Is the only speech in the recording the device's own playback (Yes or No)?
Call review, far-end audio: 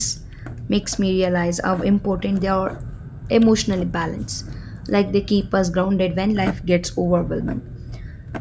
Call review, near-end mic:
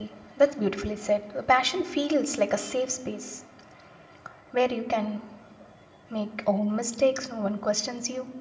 No